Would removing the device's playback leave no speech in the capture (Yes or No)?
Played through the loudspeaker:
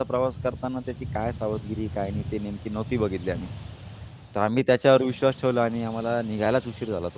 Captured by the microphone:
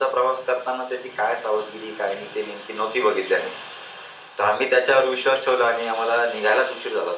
Yes